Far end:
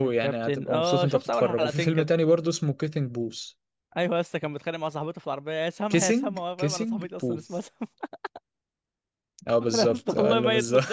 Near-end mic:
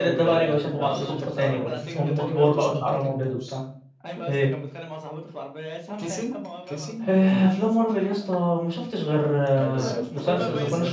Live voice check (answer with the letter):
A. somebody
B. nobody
A